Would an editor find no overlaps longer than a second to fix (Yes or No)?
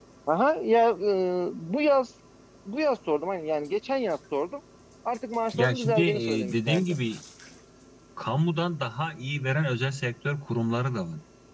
No